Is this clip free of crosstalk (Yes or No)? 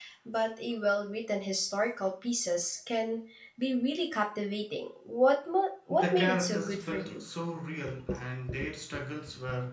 No